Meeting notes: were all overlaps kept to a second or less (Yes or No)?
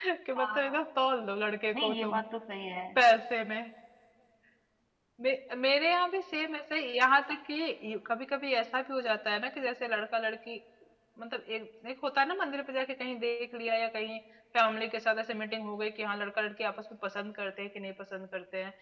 Yes